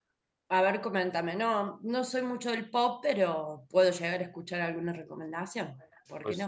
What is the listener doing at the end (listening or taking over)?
taking over